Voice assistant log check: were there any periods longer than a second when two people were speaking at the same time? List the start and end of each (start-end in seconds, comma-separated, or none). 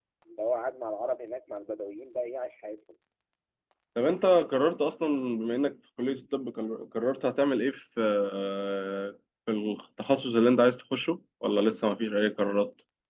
none